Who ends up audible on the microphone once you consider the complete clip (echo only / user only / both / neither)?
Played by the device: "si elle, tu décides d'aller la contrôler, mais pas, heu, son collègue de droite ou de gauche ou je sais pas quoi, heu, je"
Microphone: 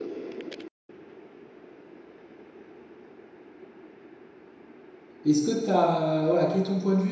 user only